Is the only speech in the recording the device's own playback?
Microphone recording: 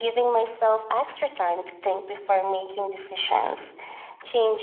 Yes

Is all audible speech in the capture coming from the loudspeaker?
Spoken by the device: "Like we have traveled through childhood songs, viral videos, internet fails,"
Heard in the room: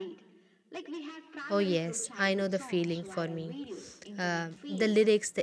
No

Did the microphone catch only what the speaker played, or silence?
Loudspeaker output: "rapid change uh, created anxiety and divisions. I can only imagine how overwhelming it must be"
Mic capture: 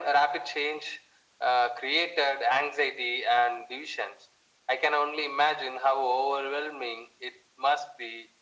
Yes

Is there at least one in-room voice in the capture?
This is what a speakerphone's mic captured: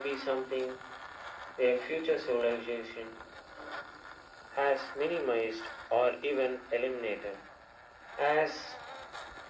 No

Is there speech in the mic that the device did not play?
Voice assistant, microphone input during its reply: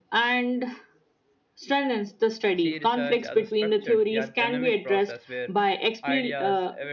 Yes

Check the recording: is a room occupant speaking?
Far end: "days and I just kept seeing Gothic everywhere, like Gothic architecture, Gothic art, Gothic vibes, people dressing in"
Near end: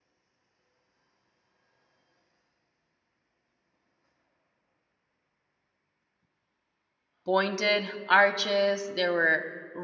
Yes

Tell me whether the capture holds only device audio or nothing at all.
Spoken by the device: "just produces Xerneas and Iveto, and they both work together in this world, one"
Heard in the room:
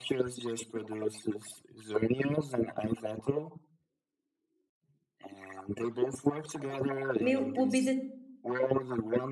No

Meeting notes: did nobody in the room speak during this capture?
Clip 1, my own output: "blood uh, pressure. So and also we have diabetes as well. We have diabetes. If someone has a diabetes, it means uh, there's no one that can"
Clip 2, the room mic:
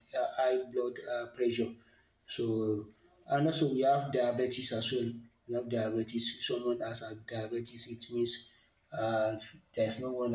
Yes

